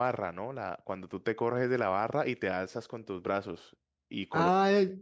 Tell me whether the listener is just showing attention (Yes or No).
No